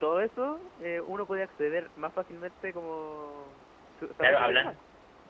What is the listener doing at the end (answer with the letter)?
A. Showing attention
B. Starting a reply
B